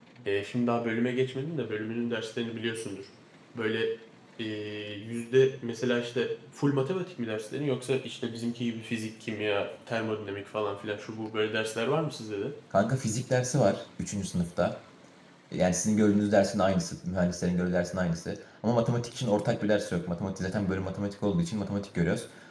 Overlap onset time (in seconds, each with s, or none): none